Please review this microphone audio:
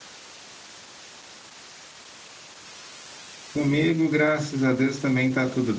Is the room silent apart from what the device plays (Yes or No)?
No